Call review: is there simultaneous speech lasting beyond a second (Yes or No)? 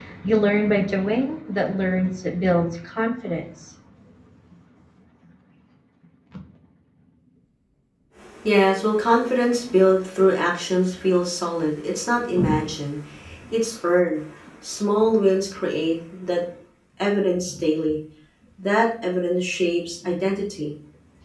No